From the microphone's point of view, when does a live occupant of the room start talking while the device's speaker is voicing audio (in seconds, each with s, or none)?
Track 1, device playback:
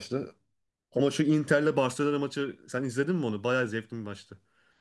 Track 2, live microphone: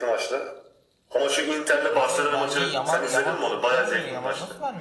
1.9 s